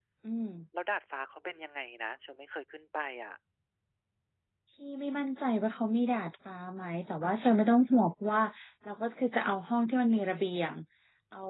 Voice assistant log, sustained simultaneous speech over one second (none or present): none